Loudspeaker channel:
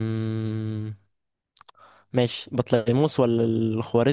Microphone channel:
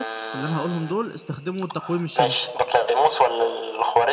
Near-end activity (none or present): present